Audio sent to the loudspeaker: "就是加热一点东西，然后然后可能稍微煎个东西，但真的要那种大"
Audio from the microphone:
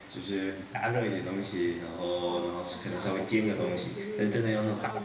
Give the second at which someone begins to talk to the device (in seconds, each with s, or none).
2.2 s